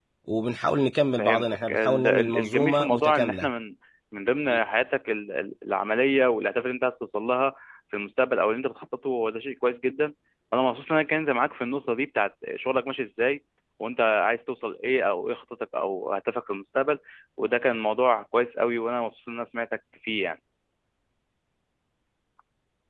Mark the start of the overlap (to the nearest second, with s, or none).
1 s